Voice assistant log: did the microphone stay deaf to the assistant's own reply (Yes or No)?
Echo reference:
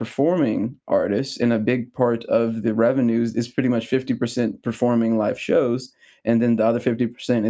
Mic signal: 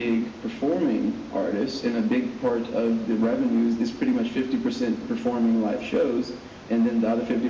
No